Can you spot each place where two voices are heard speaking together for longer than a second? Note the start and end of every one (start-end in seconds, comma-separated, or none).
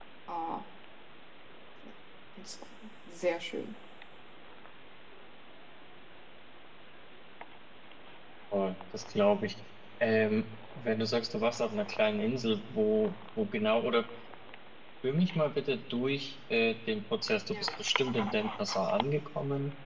none